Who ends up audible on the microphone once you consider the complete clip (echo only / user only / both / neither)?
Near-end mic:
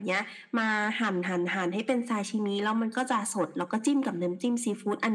echo only